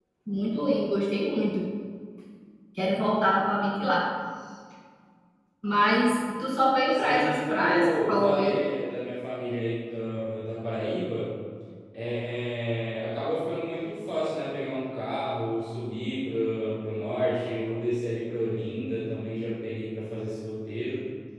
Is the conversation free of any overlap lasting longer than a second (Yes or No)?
No